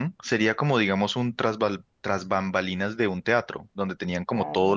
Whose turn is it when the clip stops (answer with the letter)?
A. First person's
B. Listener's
A